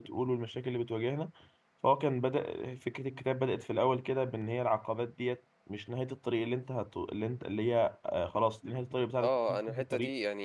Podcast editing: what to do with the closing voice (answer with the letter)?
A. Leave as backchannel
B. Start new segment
B